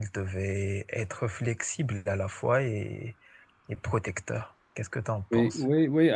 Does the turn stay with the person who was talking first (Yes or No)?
No